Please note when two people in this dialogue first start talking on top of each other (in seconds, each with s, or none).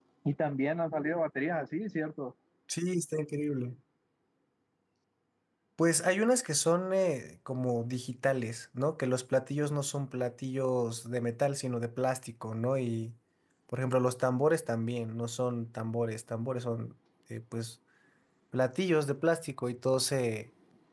none